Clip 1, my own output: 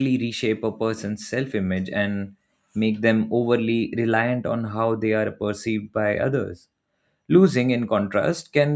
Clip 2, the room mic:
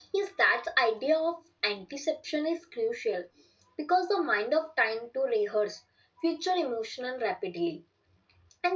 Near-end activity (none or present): present